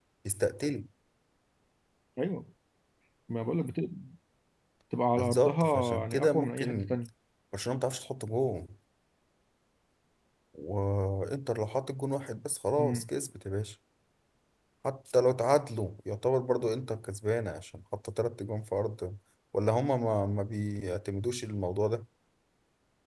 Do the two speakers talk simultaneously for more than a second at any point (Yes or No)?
Yes